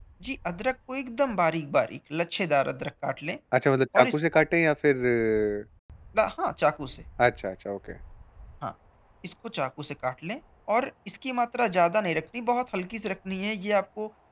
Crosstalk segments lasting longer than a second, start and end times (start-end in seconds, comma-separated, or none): none